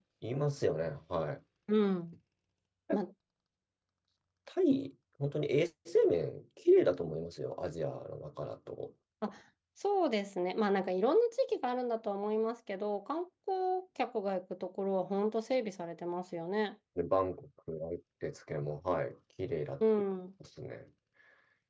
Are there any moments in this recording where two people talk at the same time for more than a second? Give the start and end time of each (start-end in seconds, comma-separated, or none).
none